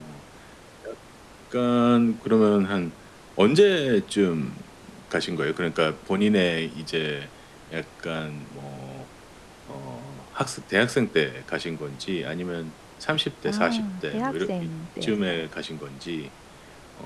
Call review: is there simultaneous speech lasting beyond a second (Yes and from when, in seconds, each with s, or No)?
Yes, from 13.4 s